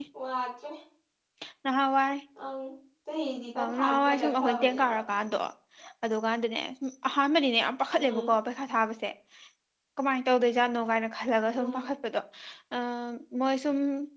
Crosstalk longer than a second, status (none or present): present